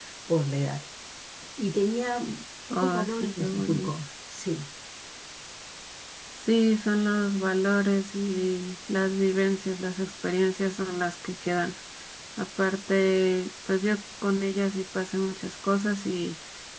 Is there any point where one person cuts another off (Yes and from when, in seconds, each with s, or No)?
Yes, from 2.7 s